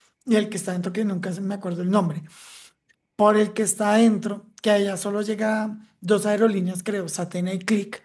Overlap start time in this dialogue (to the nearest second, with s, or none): none